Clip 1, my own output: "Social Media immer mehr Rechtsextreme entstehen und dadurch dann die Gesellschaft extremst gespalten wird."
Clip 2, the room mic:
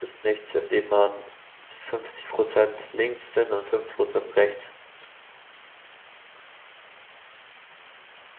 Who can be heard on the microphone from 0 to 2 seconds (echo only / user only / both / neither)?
user only